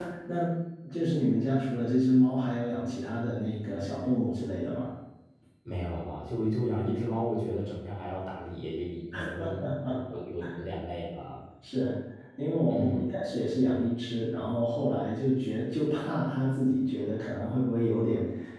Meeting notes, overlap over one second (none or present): none